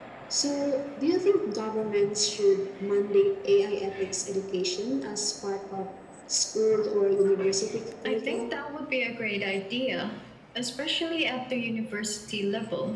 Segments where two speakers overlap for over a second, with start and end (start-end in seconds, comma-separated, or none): none